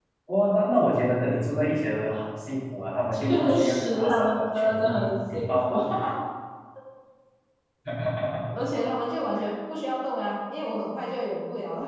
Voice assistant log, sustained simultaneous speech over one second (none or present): present